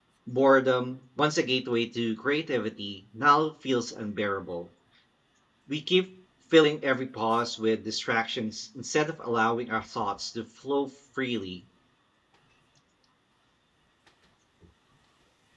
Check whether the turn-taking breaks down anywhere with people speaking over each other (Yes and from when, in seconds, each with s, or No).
No